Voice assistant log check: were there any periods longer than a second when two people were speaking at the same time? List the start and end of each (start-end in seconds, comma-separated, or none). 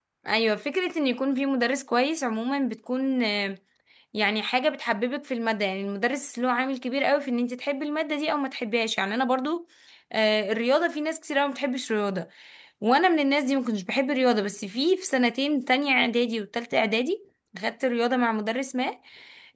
none